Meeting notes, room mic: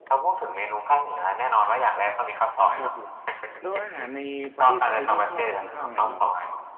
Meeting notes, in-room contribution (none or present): present